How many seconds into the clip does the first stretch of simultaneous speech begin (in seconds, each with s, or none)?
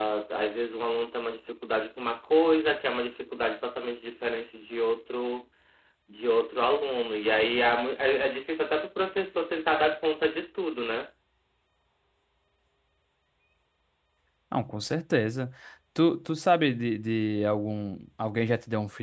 none